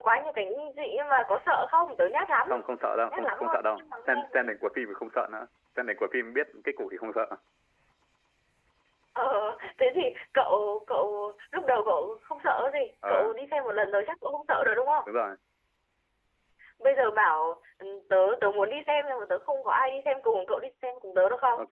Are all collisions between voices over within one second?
No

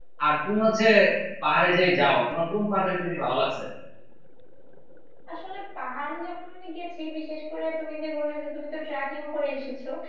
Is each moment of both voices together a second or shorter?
Yes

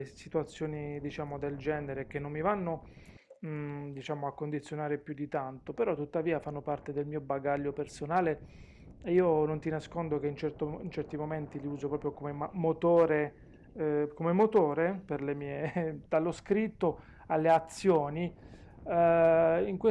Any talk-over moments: No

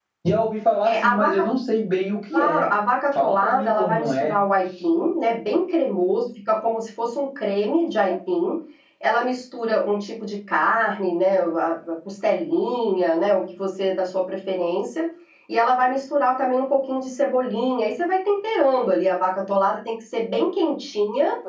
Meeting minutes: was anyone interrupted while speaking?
Yes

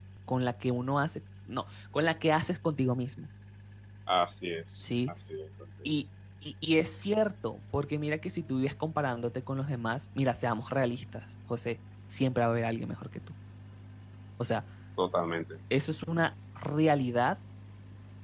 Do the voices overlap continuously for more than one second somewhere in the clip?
No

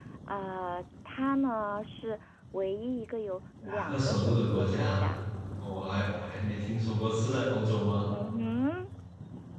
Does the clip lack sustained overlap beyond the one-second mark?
No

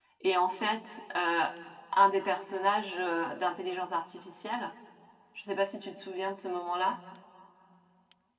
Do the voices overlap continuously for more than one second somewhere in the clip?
No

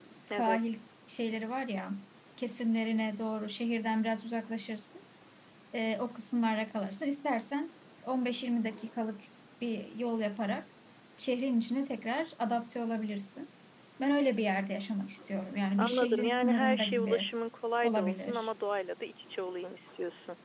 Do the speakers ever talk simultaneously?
Yes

